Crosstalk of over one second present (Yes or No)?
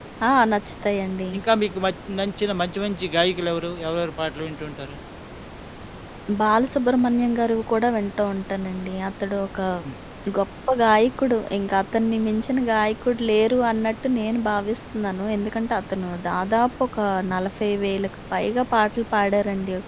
No